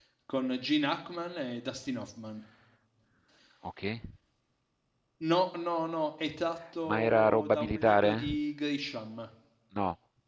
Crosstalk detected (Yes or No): Yes